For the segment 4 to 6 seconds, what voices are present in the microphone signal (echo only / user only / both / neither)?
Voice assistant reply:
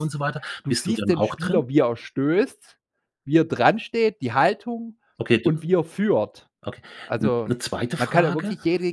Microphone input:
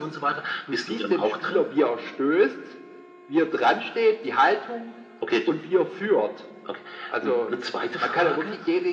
echo only